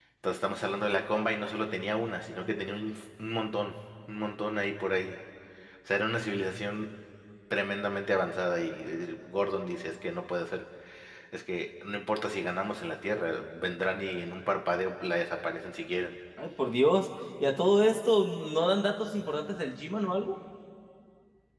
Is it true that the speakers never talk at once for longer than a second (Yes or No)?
Yes